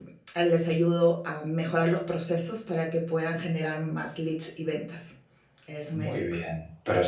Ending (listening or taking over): taking over